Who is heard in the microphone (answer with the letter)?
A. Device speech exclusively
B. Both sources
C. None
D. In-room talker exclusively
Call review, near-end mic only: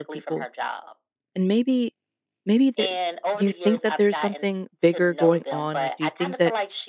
B